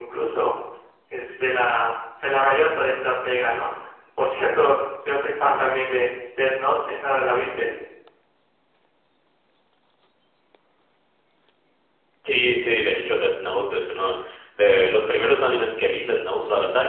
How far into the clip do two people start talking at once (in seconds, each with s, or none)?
none